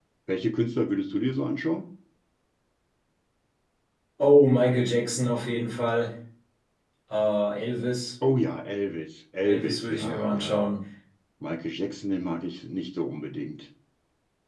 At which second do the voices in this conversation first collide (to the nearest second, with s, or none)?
9 s